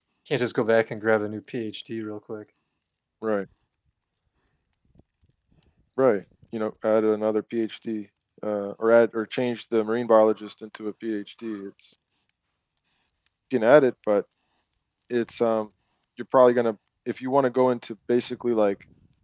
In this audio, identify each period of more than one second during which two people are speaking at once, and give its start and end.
none

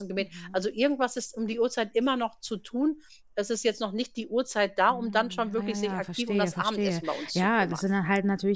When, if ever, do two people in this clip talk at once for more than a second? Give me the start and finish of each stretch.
4.9-7.8

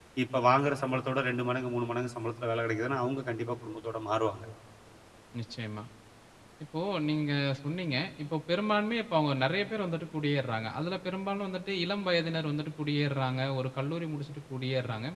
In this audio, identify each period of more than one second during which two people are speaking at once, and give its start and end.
none

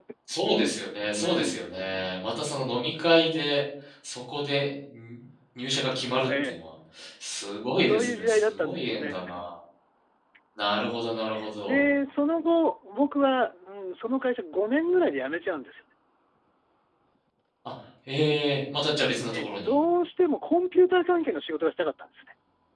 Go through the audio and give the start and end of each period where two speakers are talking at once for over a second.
7.8-9.2

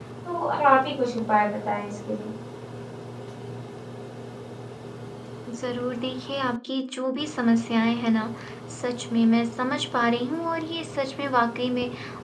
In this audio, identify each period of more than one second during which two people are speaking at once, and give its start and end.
none

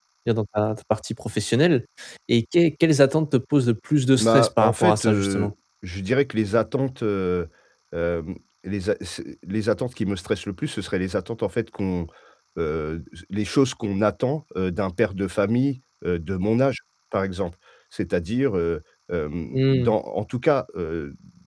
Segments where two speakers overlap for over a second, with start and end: 4.2-5.5

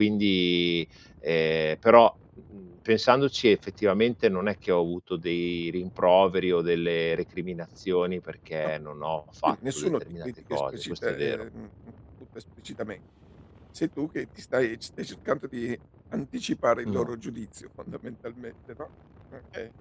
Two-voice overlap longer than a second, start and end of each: 9.5-11.4

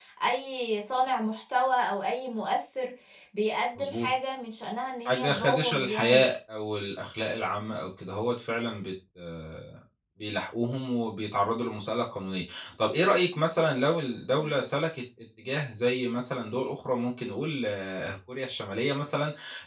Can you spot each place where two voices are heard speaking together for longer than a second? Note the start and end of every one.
5.1-6.3

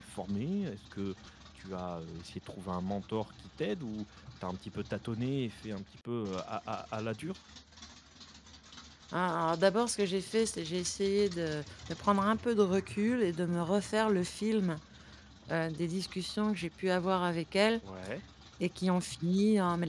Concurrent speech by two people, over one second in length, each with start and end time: none

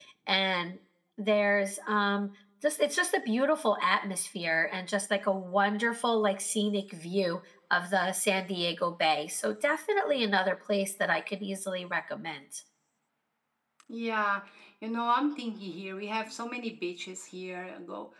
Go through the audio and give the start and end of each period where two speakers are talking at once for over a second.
none

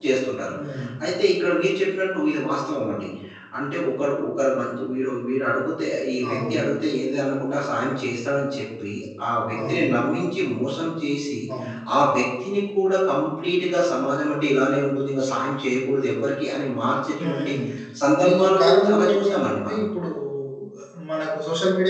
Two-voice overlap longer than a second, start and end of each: 18.3-19.8

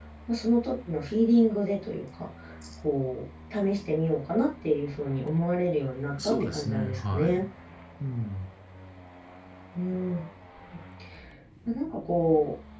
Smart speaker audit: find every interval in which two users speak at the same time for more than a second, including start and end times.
6.2-7.4

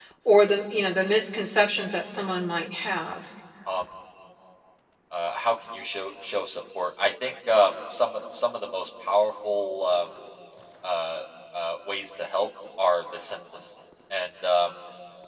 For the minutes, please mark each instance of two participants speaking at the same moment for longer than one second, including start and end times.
none

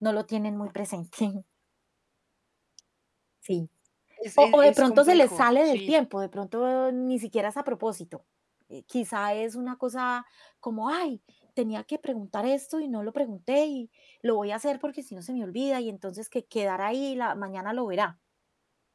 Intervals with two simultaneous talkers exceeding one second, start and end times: 4.4-6.0

